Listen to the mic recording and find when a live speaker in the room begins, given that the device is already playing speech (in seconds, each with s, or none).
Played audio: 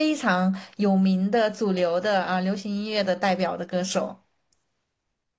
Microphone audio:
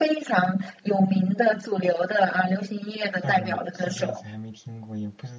3.2 s